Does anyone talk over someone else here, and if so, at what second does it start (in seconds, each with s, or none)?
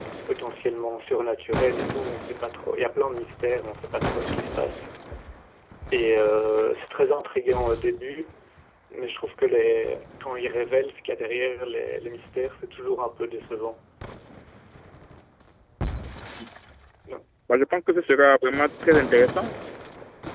none